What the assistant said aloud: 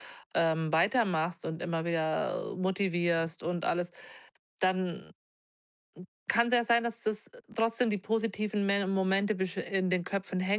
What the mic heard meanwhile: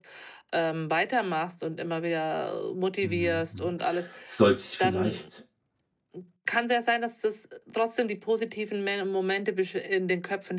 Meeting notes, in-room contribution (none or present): present